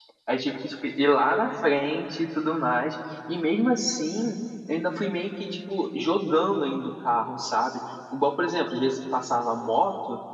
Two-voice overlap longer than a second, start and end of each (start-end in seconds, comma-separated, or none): none